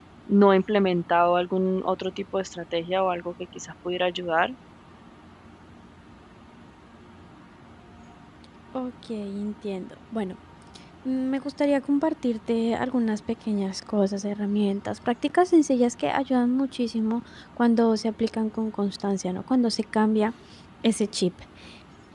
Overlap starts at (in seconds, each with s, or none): none